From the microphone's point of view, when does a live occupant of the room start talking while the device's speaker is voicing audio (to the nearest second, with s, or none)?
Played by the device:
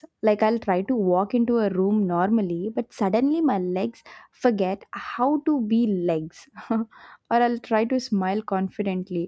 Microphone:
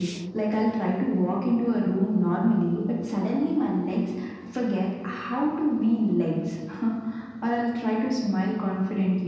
none